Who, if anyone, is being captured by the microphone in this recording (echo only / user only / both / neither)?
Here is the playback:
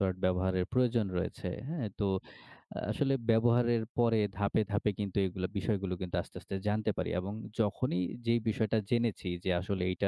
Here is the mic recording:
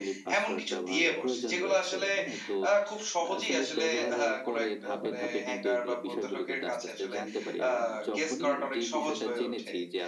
both